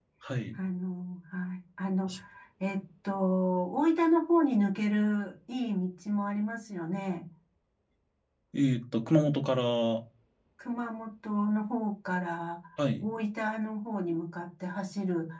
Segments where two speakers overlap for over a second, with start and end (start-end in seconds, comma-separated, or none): none